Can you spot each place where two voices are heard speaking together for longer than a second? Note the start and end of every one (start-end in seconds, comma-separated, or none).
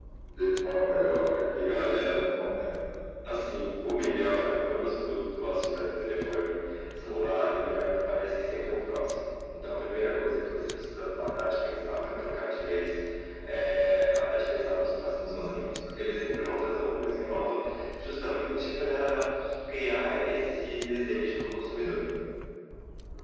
none